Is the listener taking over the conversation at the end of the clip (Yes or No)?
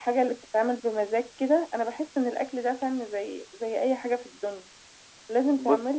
No